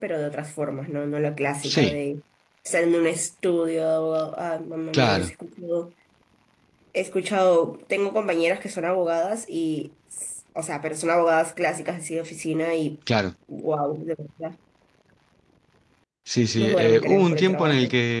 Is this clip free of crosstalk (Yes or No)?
No